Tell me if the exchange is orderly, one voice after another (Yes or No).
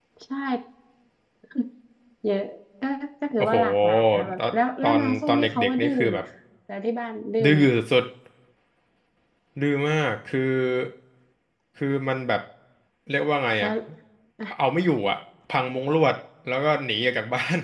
No